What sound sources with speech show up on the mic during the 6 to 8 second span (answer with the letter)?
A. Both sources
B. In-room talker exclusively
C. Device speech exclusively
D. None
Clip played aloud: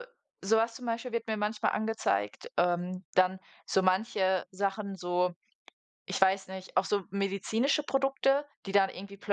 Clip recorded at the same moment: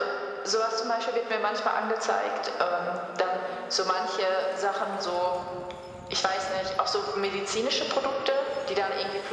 C